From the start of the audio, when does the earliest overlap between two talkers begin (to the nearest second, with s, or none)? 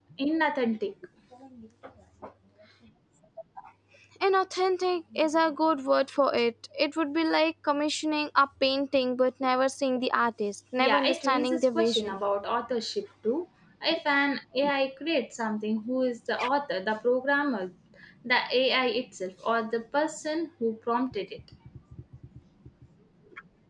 11 s